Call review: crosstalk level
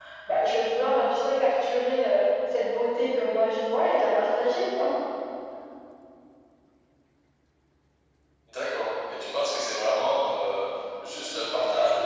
none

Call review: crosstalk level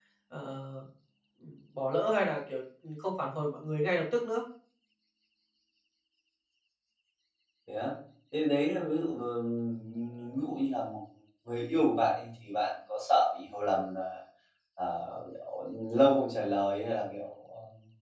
none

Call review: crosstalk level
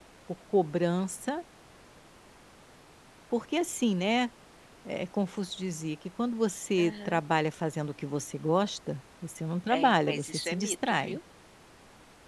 present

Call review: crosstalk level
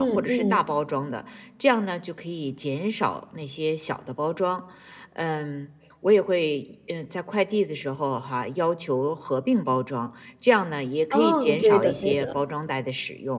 present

